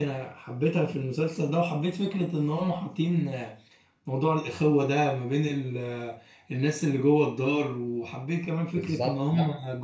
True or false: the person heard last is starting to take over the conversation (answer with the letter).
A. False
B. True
A